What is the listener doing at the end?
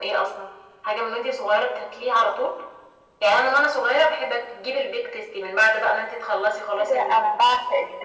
taking over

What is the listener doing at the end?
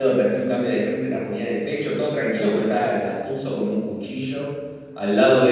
taking over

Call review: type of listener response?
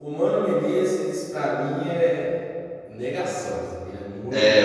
taking over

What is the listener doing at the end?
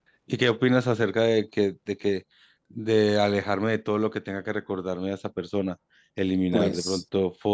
listening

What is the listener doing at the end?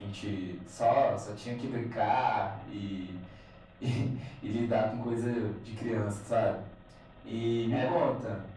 listening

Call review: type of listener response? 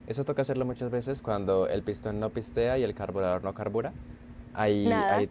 listening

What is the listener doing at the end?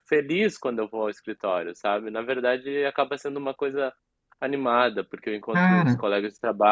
listening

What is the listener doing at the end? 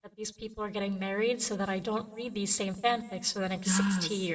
taking over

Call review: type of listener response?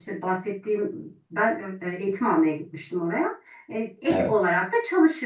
listening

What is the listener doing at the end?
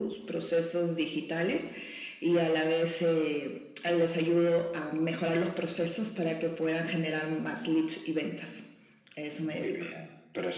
taking over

